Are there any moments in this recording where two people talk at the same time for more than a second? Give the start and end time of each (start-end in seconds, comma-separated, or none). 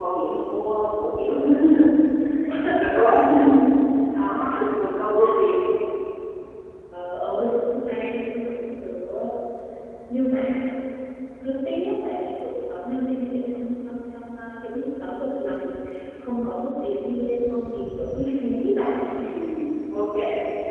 none